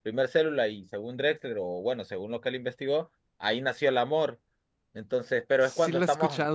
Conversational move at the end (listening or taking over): taking over